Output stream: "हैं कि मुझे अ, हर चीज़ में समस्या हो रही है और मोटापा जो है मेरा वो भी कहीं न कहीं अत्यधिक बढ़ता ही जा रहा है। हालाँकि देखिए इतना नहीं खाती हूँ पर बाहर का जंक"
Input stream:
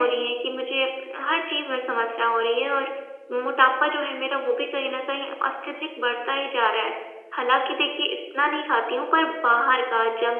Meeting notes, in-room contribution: none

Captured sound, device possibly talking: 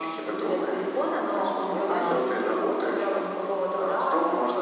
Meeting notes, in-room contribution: present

